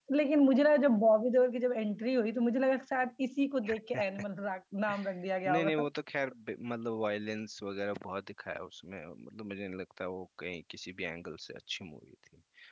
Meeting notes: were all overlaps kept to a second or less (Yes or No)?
Yes